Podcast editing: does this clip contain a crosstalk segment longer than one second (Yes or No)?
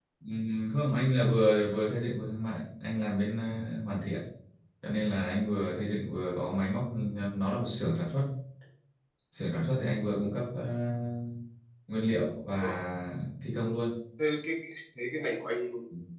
No